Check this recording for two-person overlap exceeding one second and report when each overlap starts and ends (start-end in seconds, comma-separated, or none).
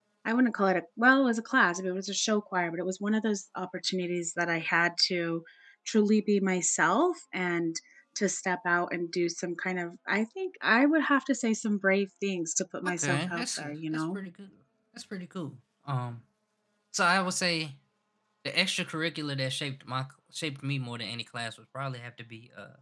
12.9-14.2